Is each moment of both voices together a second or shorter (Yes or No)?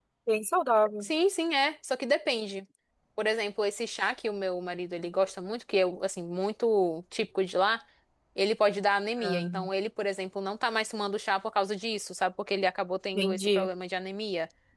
Yes